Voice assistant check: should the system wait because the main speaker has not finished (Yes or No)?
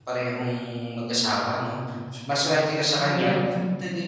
Yes